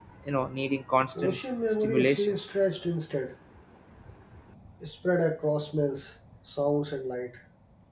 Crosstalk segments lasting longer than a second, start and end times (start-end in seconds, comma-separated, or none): 1.2-2.4